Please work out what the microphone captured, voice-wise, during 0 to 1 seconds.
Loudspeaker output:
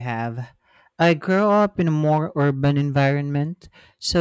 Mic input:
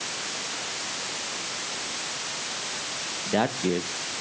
neither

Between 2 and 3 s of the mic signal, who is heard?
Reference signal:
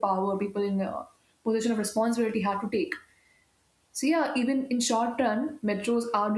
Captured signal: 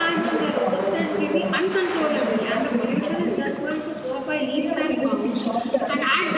both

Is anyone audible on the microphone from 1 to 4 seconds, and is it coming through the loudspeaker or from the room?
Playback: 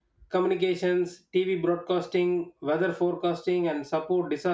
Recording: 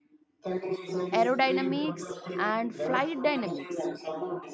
both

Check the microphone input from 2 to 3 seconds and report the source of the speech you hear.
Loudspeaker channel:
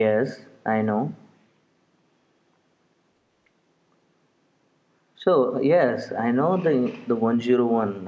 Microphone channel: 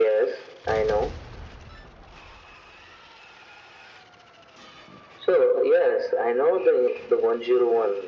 neither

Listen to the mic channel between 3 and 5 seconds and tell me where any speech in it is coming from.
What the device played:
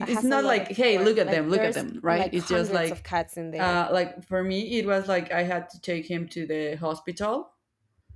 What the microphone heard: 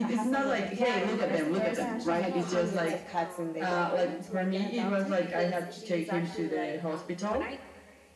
both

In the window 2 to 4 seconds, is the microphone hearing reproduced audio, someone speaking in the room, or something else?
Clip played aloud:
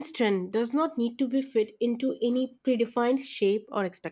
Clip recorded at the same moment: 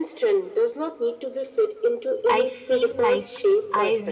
both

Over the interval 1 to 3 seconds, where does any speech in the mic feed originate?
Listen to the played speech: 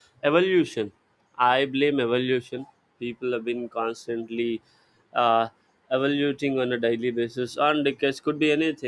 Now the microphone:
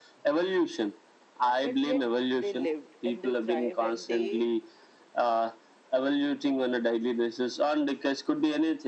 both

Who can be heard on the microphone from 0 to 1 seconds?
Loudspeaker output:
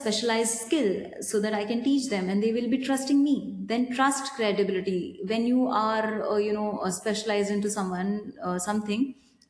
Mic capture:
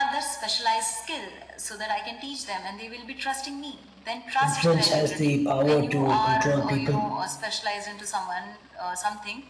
echo only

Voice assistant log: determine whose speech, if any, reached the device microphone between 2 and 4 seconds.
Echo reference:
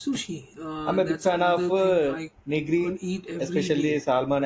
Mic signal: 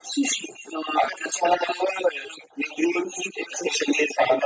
echo only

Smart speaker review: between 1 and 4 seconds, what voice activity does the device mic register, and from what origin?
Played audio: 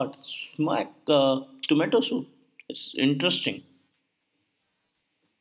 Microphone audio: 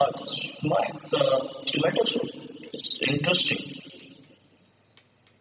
echo only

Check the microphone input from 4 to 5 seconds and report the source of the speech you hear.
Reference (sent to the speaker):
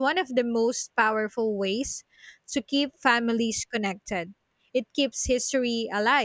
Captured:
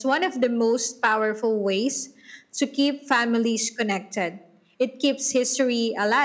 echo only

